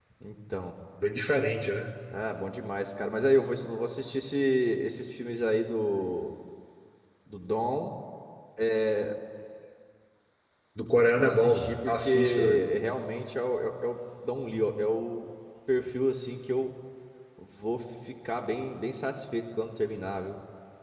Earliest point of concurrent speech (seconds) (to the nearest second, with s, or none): 11 s